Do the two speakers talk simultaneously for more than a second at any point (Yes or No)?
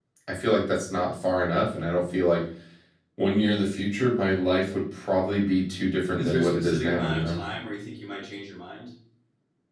Yes